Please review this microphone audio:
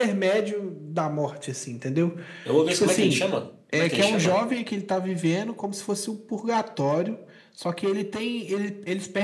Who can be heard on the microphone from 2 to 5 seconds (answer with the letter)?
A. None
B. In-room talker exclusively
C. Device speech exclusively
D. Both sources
D